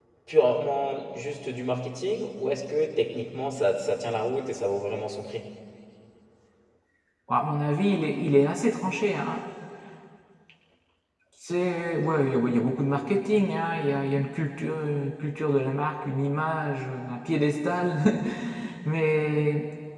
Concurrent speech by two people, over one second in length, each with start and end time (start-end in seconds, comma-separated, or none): none